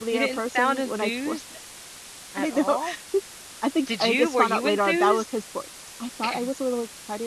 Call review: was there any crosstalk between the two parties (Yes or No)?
Yes